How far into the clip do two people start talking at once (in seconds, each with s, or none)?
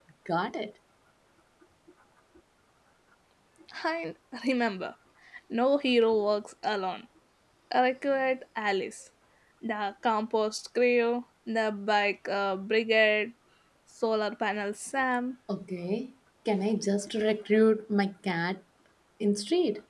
none